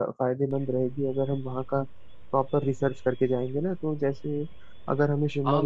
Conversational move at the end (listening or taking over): taking over